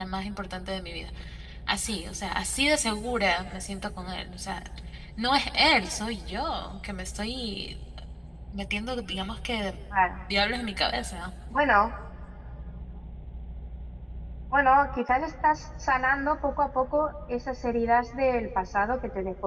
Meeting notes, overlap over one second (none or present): none